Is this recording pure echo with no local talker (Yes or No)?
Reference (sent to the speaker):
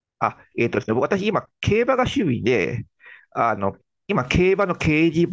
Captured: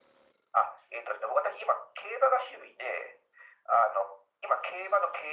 Yes